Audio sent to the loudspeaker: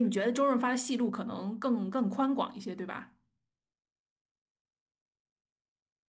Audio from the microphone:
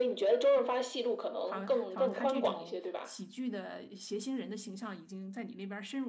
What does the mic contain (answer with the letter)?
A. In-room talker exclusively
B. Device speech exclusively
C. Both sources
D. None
C